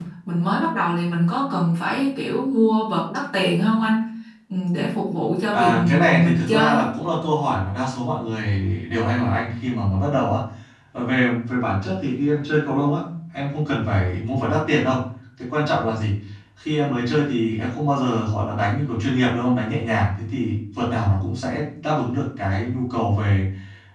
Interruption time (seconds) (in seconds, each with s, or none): 5.5 s